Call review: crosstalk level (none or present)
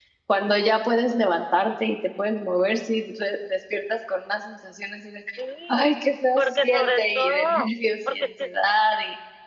present